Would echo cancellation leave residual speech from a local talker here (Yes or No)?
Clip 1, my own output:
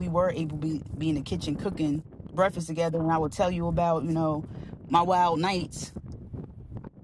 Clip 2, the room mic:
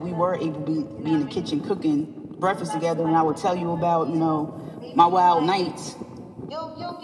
Yes